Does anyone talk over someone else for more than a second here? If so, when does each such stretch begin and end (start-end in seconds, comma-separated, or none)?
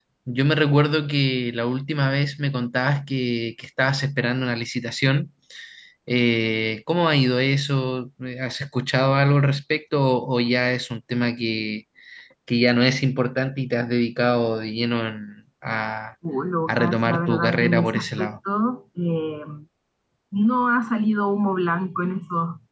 16.7-18.4